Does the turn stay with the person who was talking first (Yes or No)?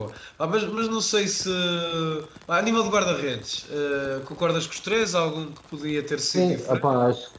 No